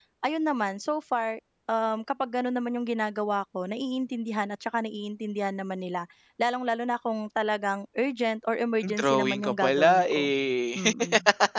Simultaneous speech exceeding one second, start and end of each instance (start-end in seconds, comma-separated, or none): 8.8-10.3